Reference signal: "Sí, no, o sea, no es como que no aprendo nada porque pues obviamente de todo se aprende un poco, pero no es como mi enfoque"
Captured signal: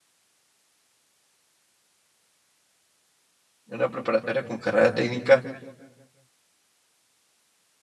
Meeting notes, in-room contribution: present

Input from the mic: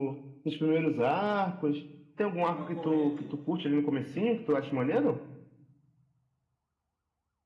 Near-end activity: present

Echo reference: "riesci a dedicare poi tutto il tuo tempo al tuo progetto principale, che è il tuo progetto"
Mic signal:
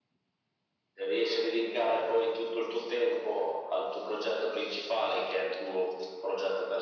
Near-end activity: none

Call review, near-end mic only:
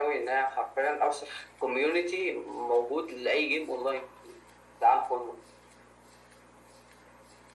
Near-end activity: none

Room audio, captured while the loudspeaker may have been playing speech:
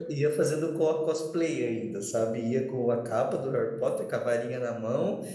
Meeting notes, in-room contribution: present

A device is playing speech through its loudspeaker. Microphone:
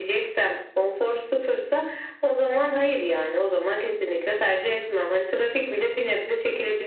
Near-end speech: none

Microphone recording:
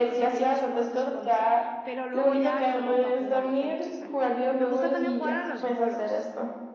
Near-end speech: present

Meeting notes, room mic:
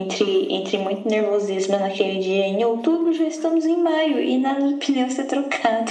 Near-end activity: none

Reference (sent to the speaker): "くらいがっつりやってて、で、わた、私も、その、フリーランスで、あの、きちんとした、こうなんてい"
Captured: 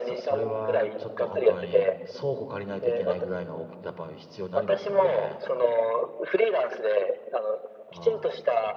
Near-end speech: present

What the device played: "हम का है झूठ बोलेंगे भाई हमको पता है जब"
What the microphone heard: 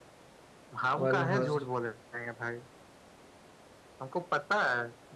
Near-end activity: present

